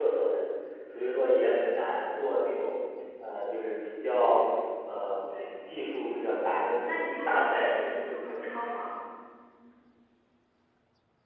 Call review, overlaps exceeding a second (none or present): present